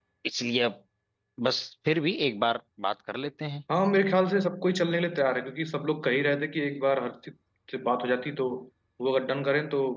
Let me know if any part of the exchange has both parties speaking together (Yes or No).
No